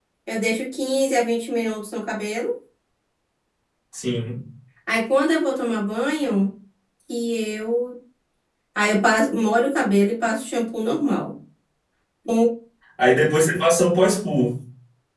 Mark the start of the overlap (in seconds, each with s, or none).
none